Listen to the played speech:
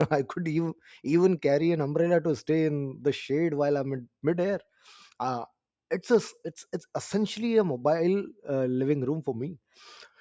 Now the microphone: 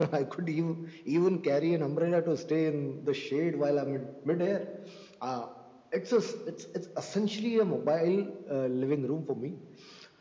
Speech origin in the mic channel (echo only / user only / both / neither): echo only